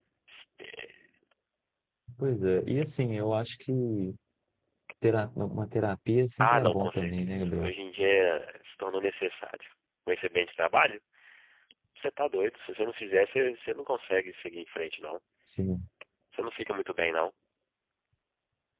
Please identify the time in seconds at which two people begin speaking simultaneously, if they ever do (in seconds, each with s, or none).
6.4 s